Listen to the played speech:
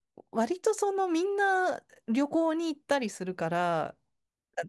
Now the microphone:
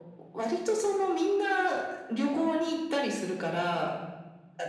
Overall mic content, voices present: echo only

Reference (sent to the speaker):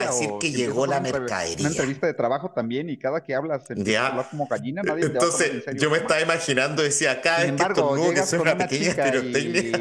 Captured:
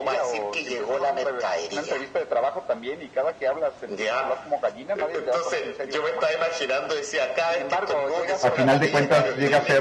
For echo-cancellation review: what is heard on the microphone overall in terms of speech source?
both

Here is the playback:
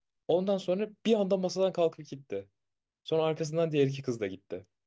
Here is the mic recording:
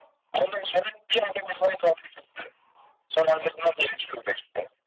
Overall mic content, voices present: echo only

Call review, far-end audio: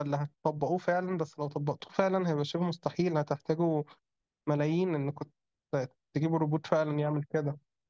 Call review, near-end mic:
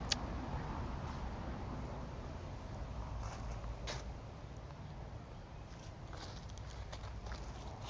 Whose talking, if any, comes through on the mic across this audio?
neither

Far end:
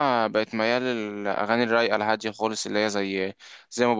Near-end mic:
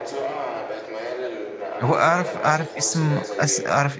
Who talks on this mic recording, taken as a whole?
both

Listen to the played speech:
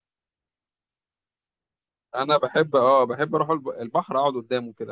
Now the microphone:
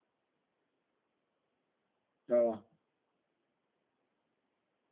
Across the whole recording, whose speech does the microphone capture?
user only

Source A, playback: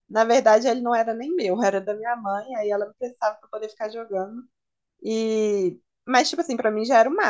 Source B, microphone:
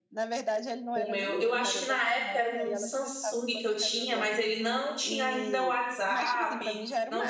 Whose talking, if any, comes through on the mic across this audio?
both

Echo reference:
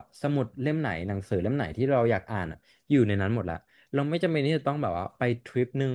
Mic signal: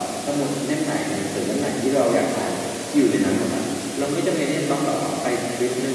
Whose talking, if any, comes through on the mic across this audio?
echo only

